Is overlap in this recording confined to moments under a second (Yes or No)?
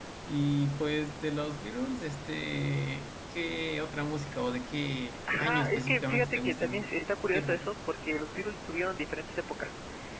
No